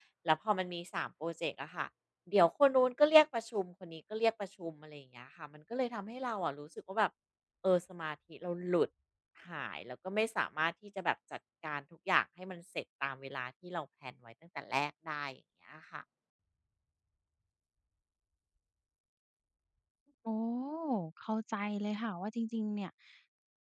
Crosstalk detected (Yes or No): No